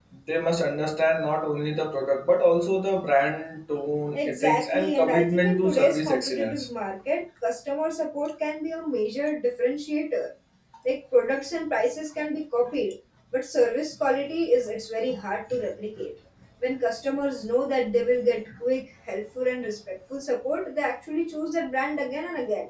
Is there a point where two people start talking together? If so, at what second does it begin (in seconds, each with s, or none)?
4.1 s